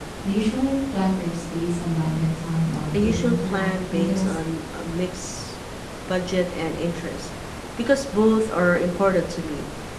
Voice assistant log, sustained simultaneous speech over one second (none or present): present